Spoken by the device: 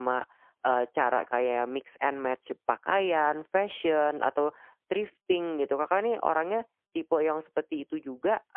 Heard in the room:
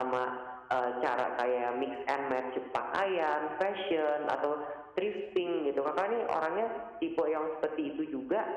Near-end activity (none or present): none